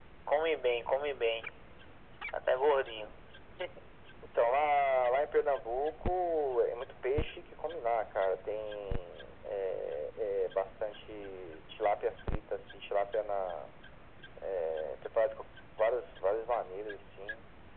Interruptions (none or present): none